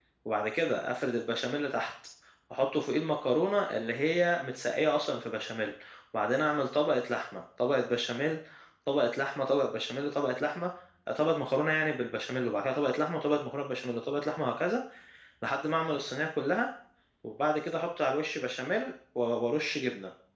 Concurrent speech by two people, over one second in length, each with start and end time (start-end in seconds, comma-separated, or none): none